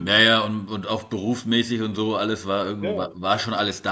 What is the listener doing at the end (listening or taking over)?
listening